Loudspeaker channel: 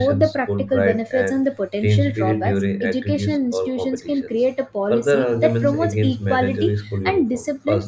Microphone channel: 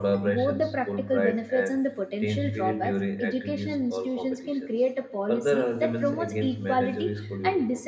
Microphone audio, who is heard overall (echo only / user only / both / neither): echo only